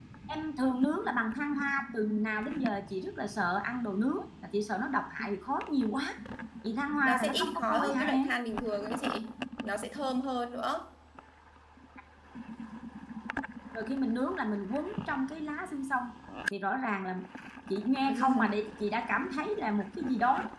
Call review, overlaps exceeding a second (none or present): present